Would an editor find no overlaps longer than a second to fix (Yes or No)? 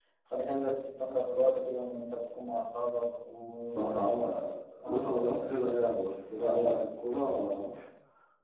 Yes